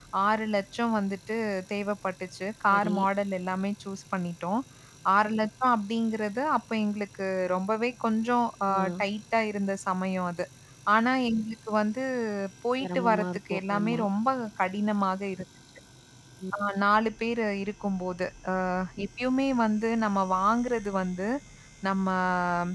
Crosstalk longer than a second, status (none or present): present